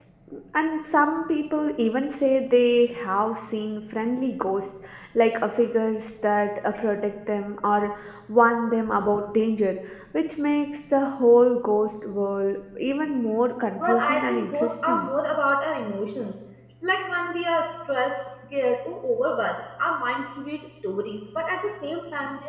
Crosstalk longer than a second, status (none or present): present